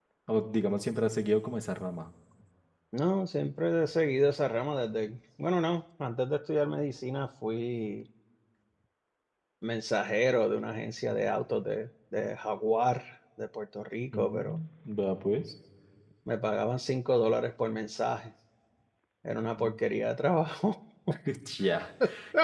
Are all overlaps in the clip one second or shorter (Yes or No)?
Yes